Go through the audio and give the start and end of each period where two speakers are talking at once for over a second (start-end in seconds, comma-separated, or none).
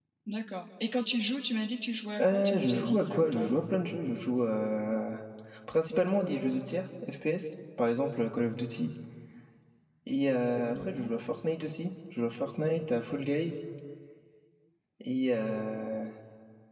2.2-3.5